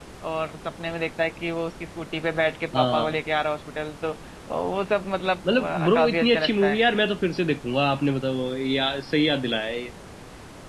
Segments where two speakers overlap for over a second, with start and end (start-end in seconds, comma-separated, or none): 5.5-6.8